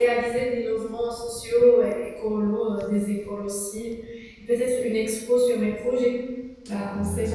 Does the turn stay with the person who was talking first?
No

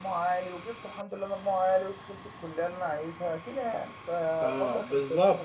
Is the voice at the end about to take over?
Yes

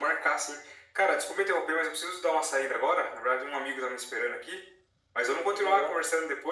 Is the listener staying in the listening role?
Yes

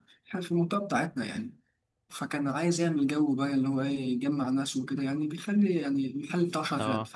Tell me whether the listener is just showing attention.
Yes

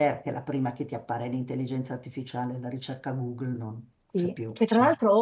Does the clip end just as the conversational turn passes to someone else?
Yes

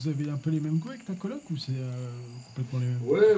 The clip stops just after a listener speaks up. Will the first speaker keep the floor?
No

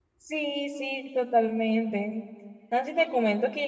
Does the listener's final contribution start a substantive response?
No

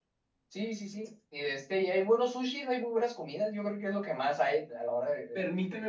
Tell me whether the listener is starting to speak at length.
Yes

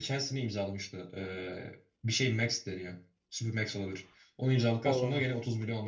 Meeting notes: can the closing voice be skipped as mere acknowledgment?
Yes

